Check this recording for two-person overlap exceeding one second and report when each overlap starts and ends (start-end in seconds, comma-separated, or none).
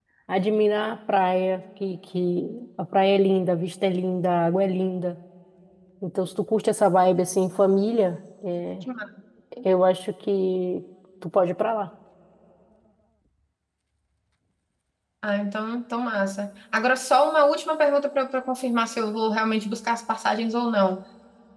none